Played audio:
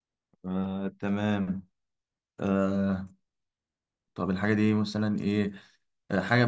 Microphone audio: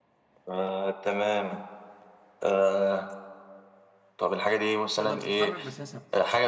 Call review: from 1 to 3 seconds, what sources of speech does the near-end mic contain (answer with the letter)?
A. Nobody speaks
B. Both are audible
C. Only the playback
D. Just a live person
C